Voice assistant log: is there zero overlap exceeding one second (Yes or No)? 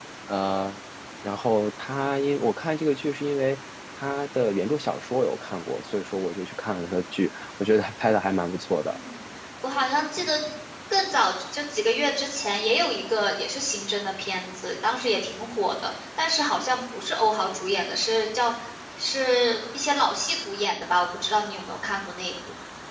Yes